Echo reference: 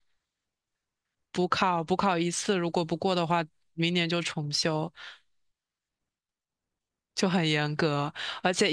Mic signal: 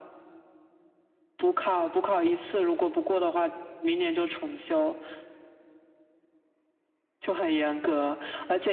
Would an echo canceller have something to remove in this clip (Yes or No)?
Yes